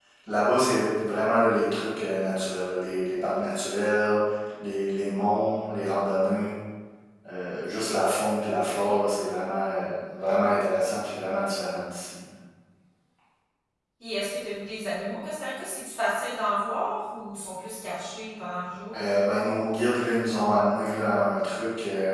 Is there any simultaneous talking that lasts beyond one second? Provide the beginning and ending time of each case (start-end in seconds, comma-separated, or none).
none